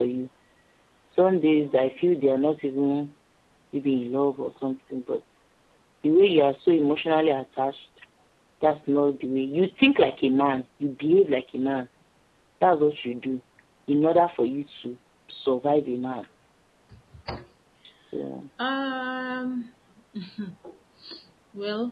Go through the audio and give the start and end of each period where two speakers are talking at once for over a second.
none

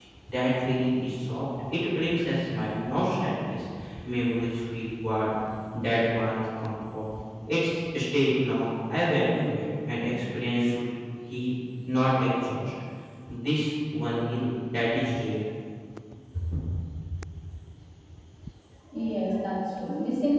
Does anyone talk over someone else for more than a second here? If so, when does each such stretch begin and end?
none

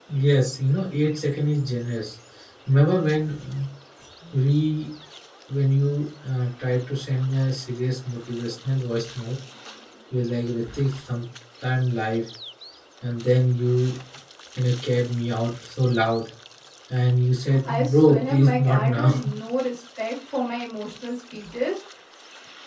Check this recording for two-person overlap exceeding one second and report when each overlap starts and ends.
17.6-19.1

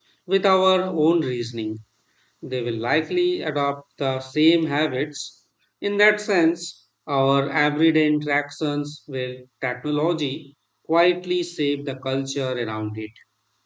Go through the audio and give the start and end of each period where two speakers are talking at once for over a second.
none

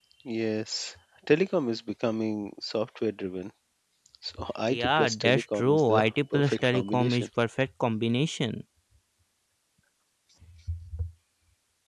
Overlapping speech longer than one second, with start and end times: 4.7-7.3

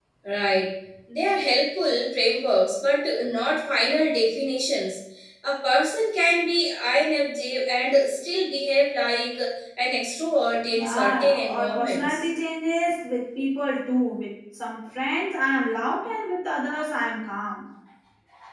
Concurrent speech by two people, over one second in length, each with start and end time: 10.7-12.2

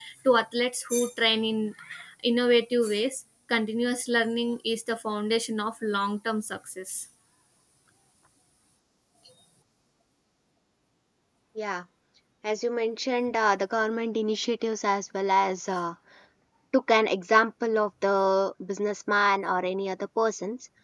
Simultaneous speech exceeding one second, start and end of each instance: none

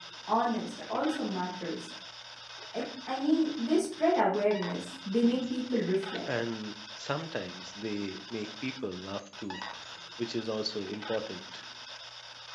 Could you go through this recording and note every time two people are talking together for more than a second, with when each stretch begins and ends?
none

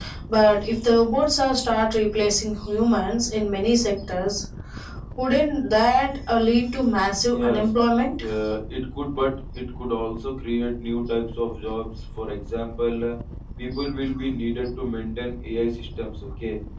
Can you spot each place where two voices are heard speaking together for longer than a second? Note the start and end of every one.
none

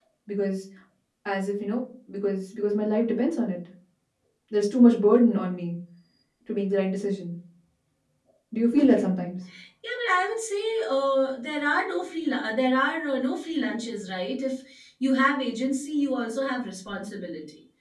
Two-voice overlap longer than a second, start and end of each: none

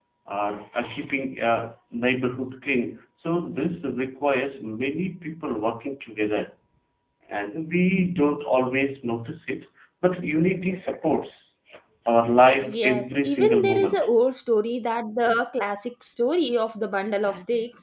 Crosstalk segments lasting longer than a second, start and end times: 12.6-14.1

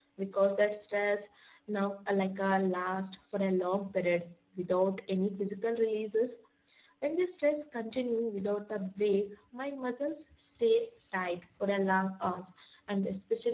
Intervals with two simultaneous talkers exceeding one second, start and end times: none

